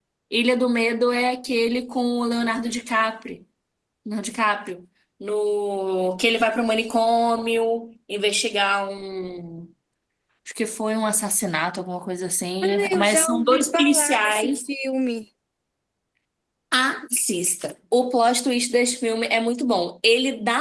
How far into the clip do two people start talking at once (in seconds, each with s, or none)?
12.6 s